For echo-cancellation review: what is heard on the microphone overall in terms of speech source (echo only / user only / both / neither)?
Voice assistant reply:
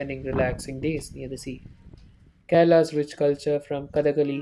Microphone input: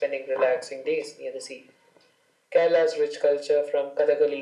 echo only